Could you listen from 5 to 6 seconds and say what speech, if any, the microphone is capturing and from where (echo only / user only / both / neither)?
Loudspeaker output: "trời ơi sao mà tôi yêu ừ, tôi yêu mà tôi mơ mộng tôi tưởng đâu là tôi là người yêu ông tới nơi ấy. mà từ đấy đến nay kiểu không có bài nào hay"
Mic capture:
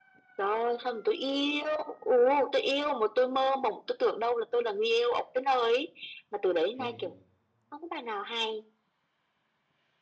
echo only